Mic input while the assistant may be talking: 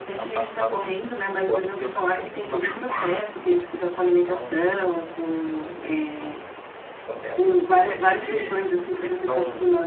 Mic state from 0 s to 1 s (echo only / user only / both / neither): both